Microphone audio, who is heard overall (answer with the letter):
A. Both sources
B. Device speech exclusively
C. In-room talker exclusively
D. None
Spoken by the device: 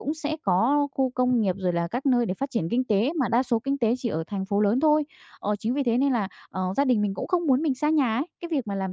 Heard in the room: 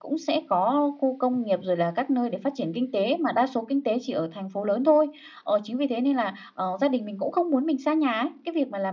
B